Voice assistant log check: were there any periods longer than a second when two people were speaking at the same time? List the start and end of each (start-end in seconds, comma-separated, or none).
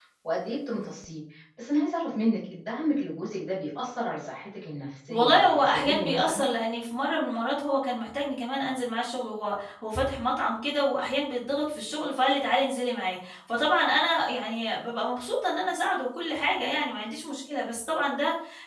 5.1-6.5